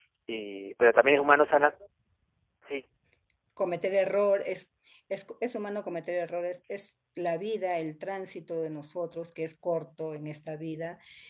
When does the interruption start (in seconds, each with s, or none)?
none